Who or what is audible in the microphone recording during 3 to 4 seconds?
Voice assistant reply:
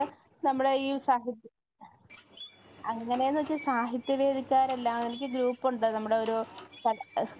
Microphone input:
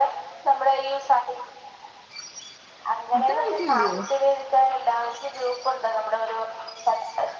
both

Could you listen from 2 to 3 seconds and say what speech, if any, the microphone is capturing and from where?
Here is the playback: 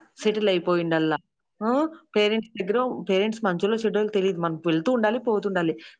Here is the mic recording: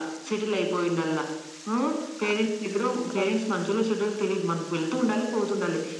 both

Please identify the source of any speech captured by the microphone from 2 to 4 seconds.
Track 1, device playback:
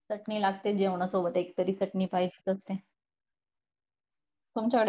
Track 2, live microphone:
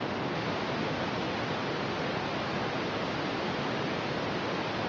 neither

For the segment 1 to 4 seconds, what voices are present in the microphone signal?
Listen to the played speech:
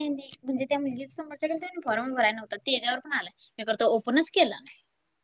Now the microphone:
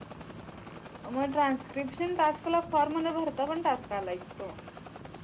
user only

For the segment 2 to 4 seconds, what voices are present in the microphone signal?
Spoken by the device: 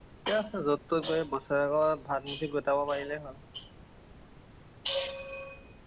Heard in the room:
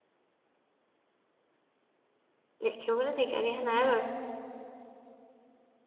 user only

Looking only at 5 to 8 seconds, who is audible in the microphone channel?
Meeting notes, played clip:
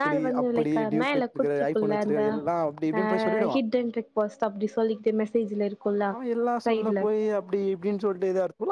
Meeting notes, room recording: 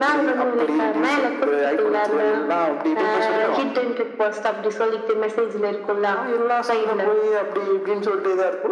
echo only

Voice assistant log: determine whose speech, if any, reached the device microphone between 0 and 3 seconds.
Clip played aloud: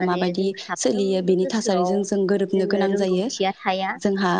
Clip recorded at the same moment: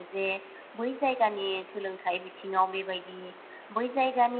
user only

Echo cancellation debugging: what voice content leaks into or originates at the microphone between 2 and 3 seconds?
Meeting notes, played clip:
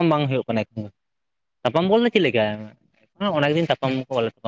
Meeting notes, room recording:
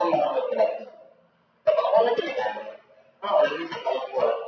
echo only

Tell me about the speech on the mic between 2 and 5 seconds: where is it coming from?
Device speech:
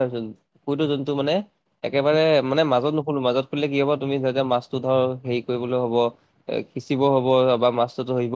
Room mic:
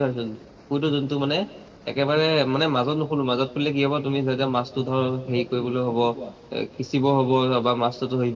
echo only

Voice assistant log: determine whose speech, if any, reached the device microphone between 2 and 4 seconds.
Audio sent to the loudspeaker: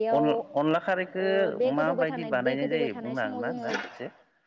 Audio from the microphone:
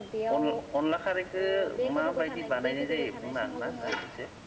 echo only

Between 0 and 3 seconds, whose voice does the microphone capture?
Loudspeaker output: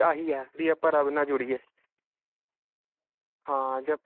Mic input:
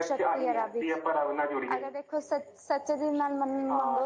both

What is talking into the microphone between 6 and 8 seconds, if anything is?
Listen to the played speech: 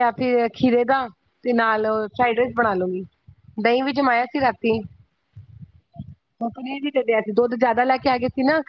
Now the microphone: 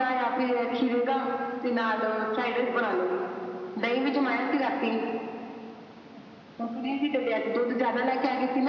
echo only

